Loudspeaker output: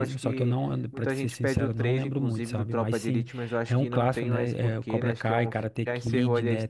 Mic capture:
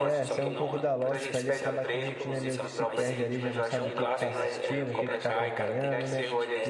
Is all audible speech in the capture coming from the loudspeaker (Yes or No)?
No